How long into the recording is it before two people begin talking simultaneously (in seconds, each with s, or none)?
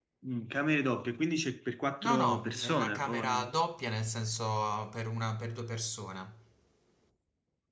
2.0 s